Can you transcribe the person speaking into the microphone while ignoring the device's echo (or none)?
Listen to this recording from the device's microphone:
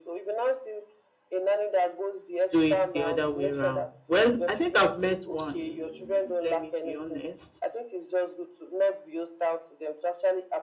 do it the other way round. Well, I think I've met one, let me be honest.